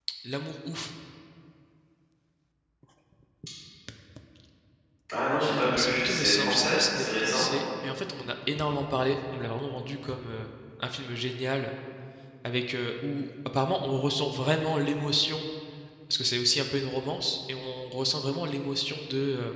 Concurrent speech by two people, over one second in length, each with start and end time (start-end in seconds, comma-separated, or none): 5.8-7.5